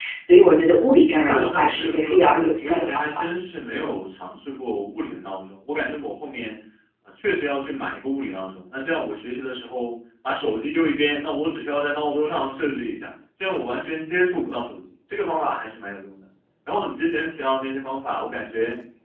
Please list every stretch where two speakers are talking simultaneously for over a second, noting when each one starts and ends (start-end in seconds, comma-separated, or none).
1.3-3.2